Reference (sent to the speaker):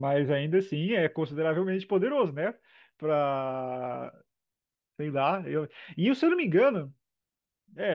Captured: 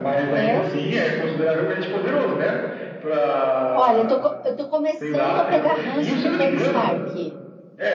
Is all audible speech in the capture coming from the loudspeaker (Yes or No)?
No